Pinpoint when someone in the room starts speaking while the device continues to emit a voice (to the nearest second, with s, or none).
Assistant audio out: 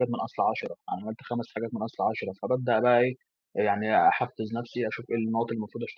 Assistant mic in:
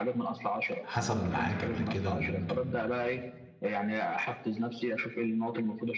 1 s